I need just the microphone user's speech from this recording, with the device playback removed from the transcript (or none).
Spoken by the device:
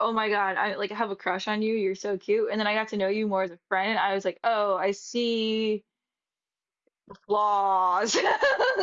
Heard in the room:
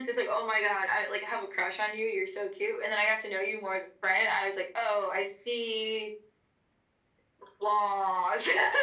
none